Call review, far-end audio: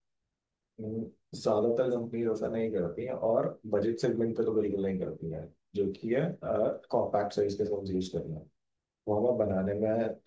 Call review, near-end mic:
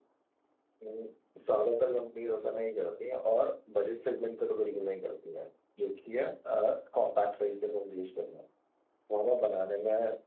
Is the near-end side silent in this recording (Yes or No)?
Yes